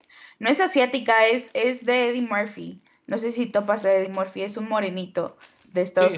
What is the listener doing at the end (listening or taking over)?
taking over